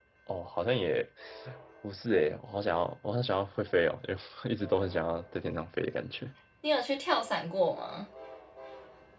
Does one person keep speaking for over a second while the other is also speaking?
No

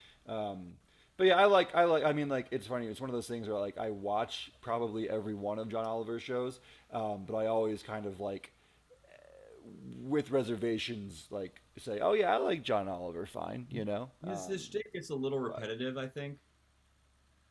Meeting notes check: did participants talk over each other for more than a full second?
No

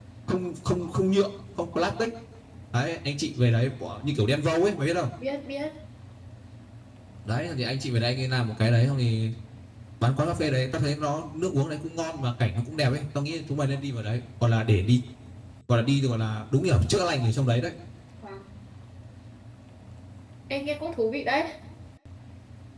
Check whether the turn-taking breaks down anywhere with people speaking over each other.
No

